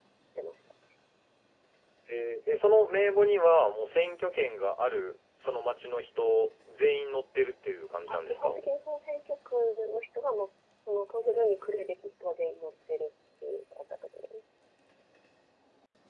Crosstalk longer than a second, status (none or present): none